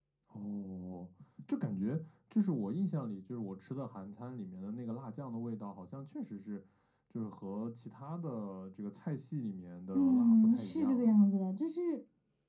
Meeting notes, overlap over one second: present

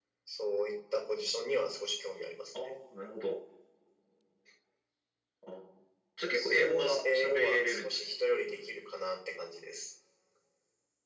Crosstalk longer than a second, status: present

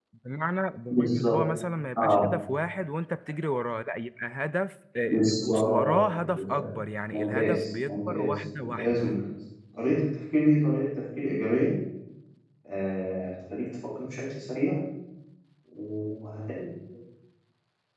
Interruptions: present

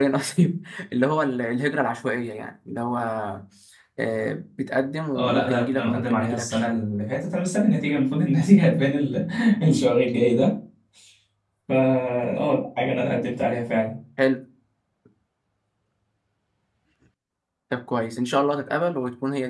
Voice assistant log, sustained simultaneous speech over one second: present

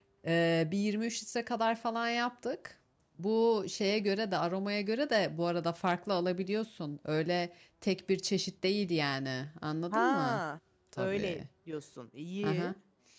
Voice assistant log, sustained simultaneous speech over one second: none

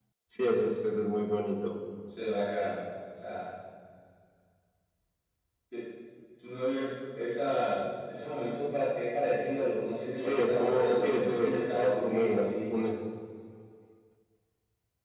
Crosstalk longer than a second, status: present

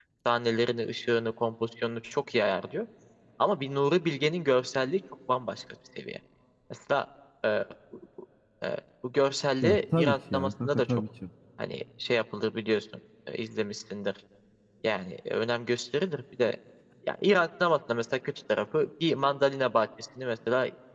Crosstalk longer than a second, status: present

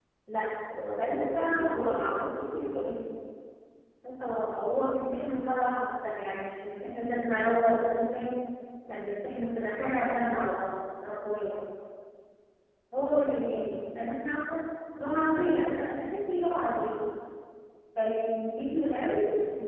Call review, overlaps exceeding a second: present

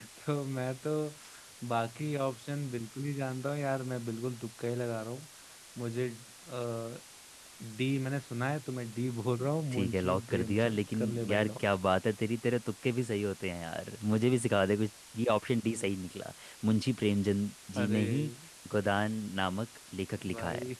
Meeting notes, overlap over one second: present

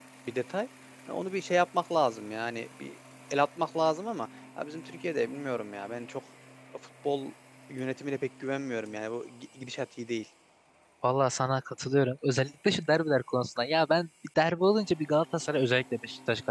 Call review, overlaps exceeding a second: none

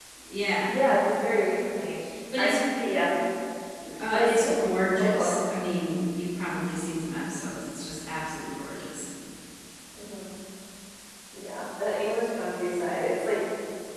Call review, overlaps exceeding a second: none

